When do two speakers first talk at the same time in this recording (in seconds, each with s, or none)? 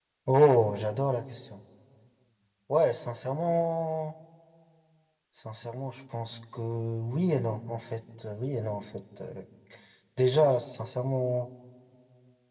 none